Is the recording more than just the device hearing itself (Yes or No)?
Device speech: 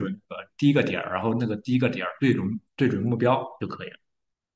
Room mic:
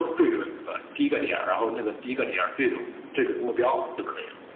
No